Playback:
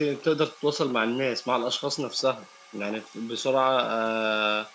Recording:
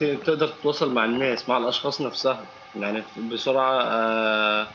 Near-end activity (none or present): none